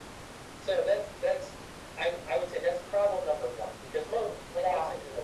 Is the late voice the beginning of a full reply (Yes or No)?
No